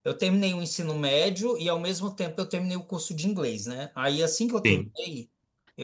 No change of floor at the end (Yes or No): Yes